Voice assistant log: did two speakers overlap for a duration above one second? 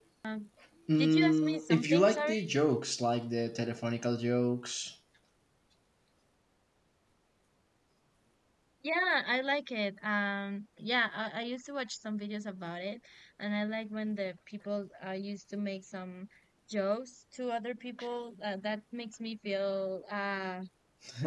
Yes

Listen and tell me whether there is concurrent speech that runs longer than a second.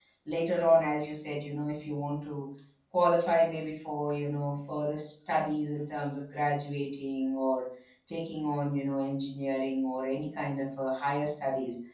No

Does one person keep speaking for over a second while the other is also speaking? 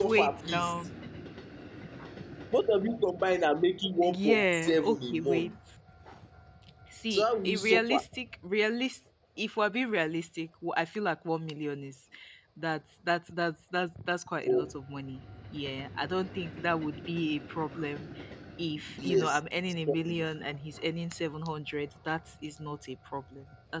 Yes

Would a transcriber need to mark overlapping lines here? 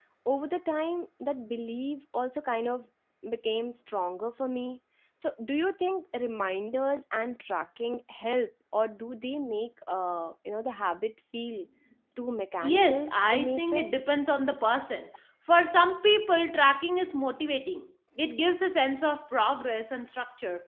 Yes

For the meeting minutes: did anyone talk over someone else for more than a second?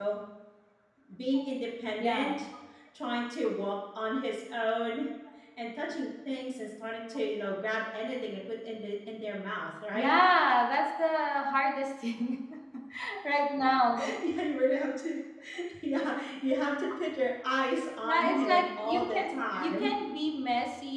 Yes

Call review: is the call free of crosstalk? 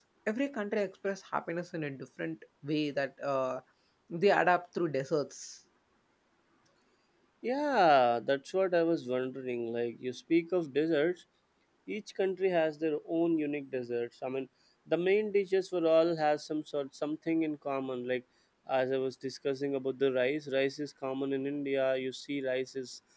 Yes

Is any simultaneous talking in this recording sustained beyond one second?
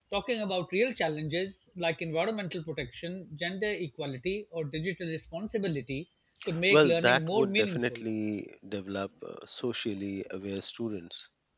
Yes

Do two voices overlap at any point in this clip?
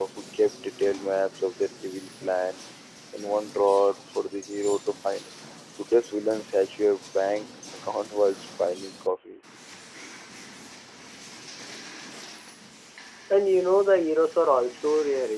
No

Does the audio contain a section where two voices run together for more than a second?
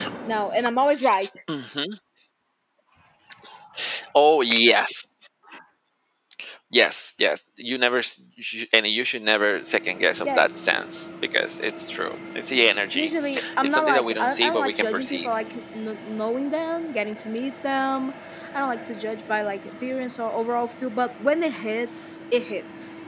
Yes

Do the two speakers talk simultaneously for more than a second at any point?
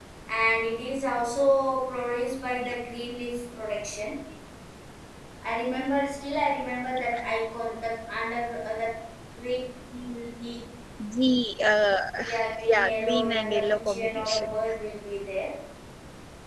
Yes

